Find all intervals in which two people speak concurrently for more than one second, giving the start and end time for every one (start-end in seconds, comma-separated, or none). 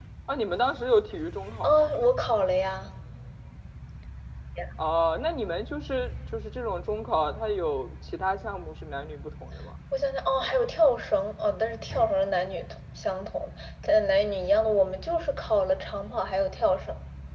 none